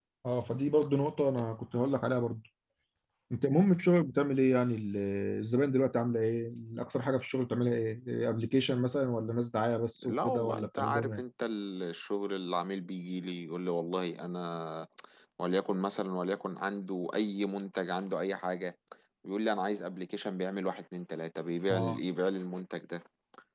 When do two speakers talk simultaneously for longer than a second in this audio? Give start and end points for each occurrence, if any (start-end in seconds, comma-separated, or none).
10.0-11.2